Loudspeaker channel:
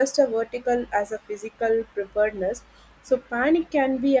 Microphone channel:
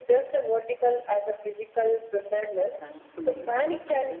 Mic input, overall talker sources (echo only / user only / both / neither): both